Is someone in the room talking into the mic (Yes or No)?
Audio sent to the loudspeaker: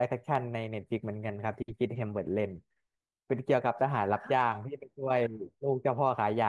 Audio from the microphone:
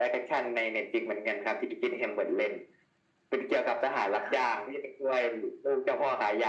No